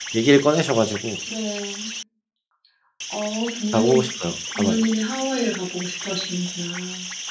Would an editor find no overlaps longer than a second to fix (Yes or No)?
Yes